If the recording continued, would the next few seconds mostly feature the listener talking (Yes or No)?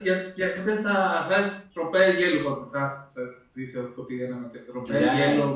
No